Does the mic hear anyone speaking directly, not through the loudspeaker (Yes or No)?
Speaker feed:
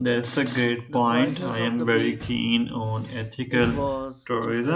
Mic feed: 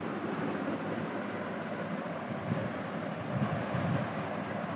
No